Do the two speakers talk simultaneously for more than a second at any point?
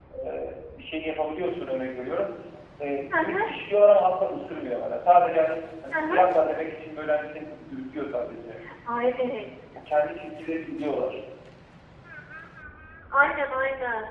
No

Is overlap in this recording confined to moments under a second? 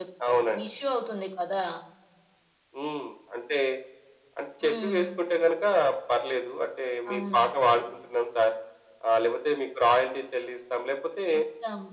Yes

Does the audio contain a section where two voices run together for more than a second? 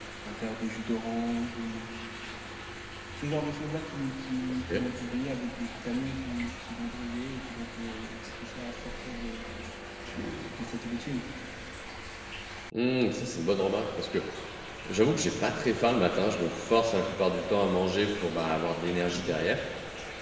No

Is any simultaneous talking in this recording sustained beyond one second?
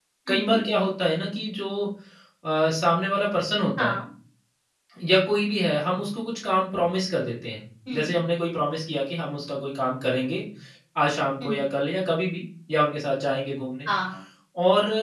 No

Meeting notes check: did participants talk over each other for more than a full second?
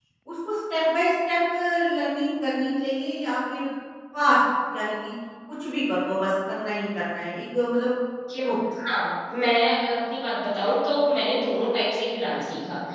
No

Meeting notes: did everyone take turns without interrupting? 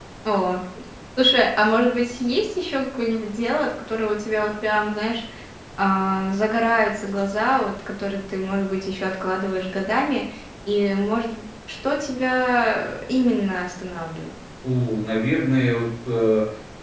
Yes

